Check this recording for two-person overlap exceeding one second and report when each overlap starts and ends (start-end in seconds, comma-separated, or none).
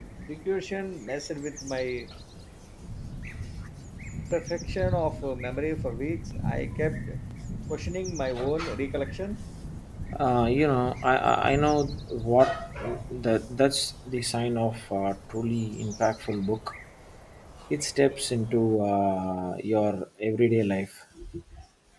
none